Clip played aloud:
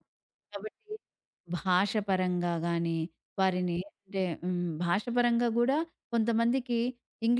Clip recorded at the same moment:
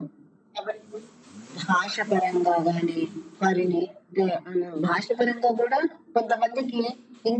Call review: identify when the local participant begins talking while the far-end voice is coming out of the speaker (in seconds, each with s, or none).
none